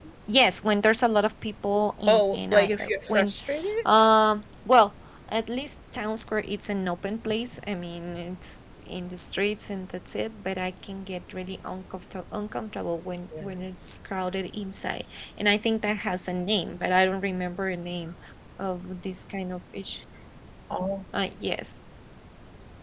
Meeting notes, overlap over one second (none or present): present